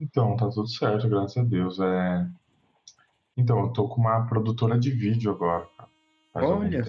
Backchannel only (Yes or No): No